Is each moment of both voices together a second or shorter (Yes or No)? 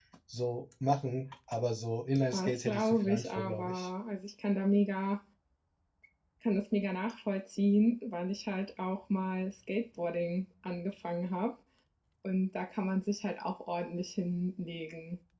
No